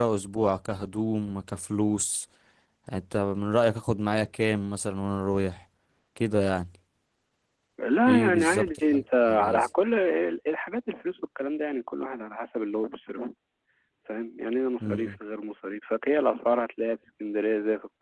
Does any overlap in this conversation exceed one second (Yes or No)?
Yes